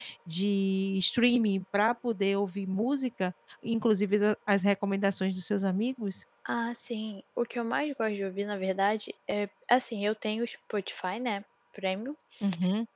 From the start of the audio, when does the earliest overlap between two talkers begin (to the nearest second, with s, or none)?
none